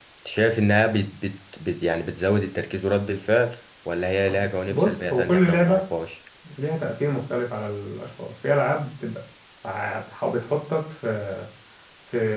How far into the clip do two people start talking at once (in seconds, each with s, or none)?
4.3 s